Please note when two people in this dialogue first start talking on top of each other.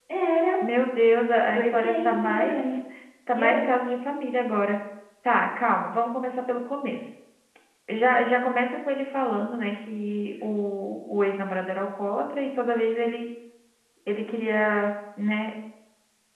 1.5 s

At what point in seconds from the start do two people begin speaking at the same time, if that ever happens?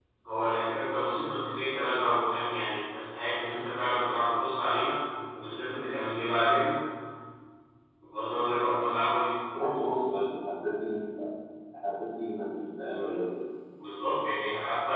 none

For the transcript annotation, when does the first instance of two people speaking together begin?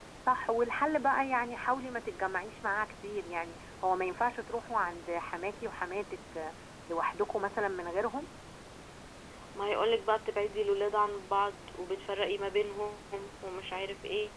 none

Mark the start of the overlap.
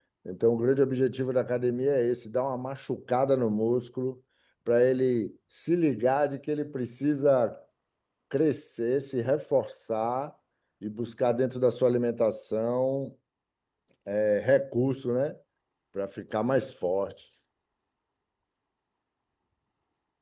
none

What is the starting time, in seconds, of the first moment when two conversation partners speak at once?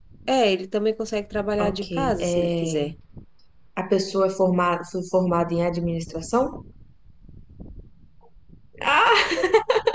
1.6 s

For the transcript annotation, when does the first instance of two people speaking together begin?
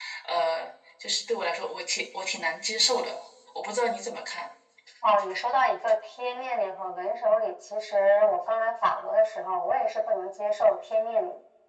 none

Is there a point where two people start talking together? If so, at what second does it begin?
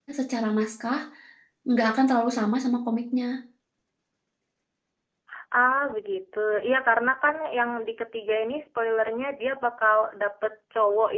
none

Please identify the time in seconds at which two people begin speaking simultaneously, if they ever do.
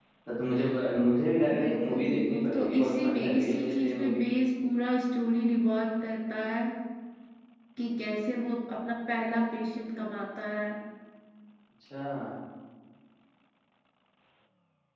1.5 s

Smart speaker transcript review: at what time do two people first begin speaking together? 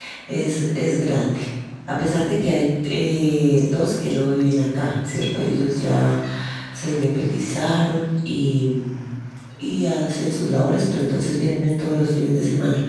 none

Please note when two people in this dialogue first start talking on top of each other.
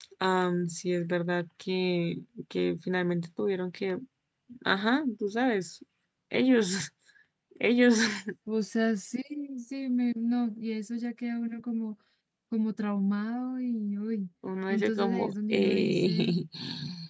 14.7 s

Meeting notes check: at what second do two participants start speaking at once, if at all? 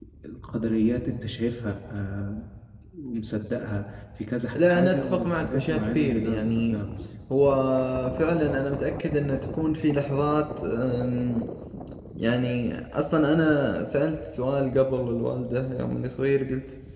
4.5 s

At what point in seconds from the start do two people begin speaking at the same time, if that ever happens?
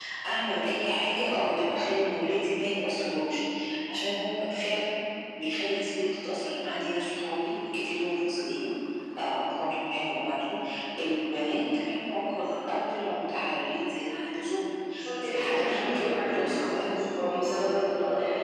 15.2 s

